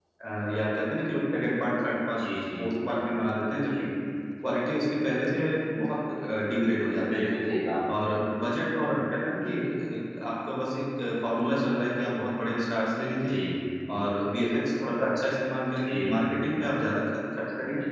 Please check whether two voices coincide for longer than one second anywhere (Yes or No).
No